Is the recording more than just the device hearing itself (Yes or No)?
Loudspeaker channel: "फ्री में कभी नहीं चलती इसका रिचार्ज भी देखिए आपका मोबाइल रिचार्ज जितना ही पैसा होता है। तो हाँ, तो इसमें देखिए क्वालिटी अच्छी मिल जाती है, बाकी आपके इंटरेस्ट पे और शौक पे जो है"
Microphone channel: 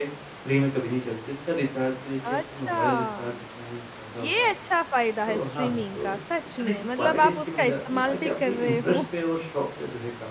Yes